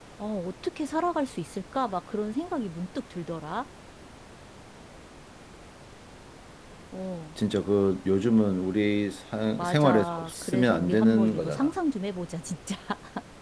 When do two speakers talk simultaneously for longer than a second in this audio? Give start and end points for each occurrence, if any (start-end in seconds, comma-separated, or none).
9.6-11.7